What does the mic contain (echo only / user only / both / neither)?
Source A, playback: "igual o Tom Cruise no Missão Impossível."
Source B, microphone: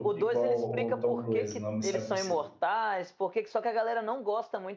both